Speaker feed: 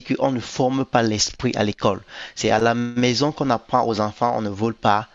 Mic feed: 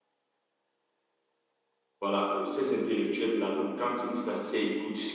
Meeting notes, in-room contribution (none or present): present